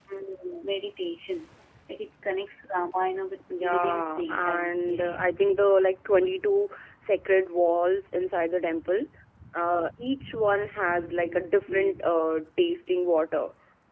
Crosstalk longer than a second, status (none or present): present